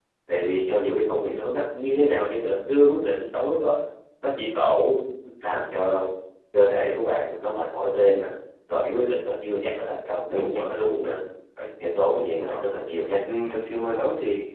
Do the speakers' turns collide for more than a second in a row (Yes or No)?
No